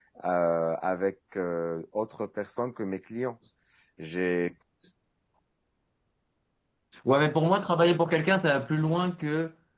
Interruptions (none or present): none